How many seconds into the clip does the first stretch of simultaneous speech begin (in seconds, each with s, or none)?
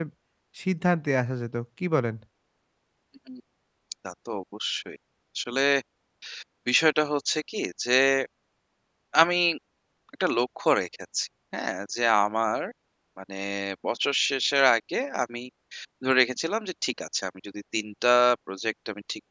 none